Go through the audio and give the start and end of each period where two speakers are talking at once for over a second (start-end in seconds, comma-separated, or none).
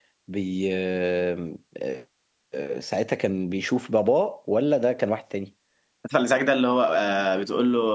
none